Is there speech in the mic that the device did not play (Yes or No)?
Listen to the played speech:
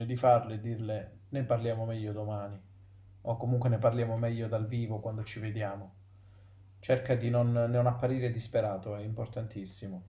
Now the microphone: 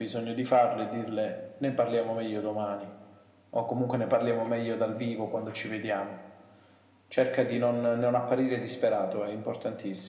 No